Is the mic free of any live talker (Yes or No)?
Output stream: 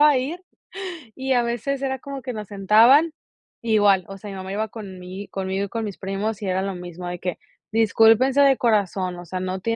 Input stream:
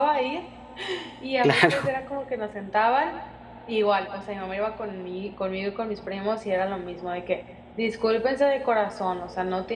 No